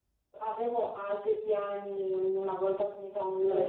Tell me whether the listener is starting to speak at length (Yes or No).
No